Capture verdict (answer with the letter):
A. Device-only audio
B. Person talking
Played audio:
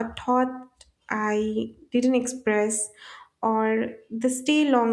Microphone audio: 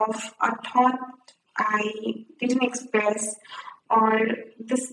A